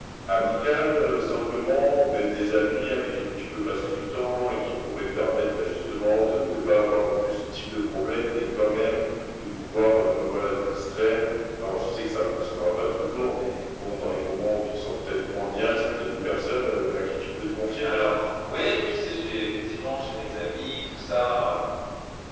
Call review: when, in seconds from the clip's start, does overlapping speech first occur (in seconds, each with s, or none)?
none